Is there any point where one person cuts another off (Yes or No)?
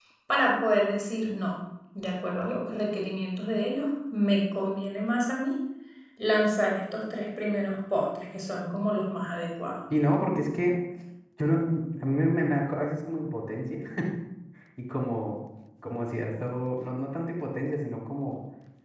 No